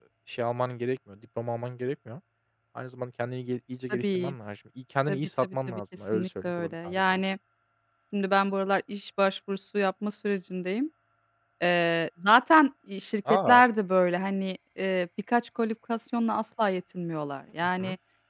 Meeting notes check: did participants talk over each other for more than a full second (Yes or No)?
Yes